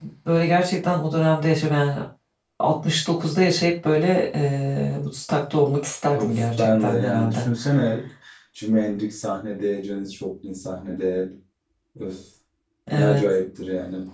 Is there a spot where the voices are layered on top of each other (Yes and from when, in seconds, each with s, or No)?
Yes, from 6.1 s